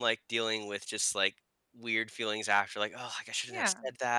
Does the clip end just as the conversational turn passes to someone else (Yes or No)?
No